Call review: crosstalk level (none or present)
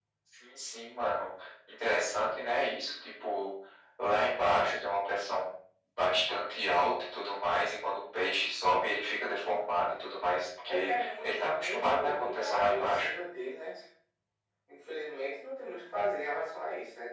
present